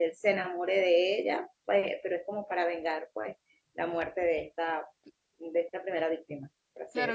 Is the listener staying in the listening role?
No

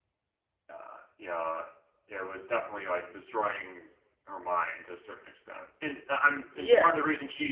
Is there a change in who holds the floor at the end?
No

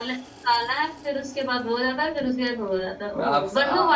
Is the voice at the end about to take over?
Yes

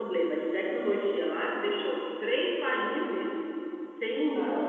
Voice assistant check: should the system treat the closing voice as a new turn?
No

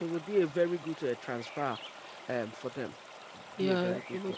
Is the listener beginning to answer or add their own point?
Yes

